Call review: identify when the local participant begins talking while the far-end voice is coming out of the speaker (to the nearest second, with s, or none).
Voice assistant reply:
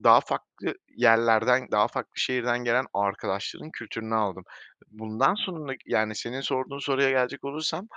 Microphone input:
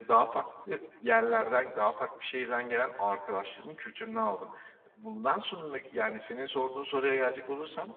none